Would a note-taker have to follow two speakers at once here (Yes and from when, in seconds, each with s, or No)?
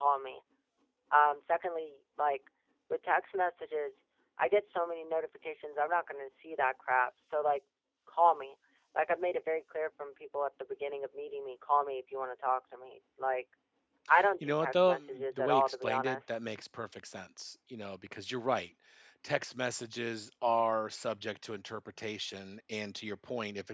Yes, from 14.4 s